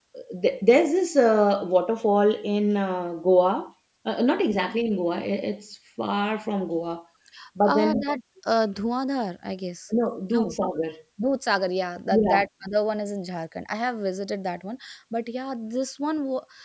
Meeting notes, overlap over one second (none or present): none